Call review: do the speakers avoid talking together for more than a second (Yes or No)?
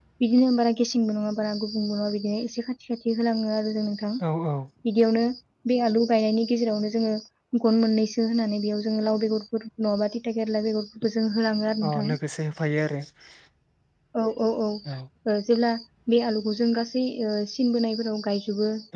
Yes